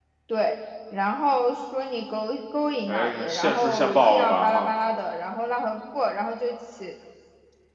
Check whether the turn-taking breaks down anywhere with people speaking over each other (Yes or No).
Yes